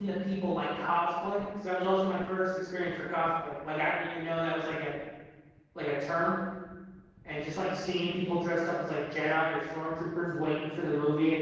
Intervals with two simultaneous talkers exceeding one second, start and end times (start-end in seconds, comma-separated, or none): none